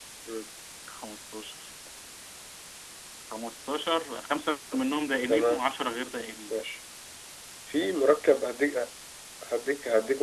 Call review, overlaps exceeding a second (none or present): none